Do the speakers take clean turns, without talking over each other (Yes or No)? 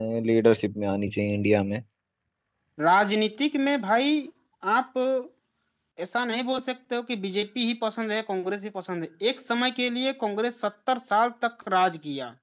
Yes